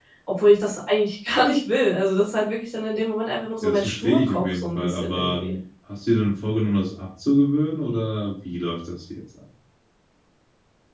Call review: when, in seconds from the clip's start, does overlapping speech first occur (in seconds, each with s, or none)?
3.6 s